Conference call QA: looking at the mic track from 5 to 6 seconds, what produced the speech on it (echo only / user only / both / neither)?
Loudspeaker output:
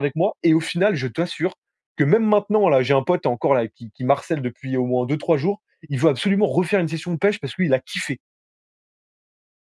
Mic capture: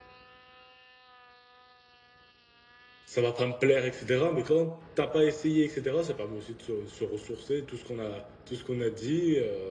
user only